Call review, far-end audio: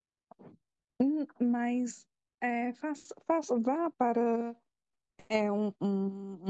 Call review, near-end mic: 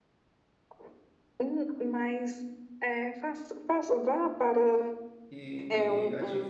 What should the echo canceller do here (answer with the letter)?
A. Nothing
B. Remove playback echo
B